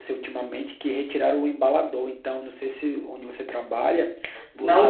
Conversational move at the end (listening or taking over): listening